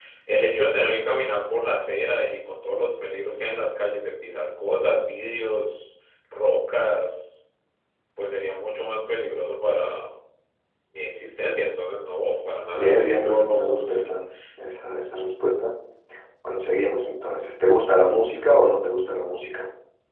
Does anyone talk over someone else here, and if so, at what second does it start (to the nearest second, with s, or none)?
13 s